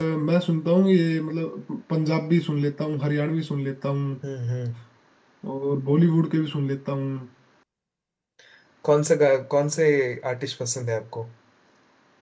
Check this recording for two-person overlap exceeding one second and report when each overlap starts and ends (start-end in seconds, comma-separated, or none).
none